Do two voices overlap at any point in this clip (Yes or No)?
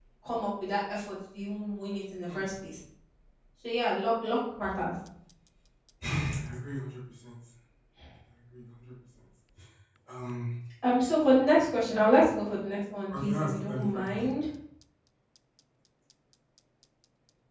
Yes